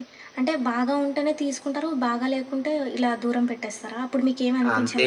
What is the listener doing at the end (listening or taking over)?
taking over